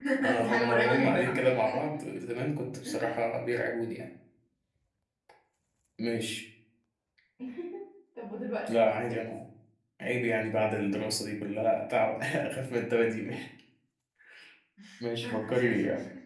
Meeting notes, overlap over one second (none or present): present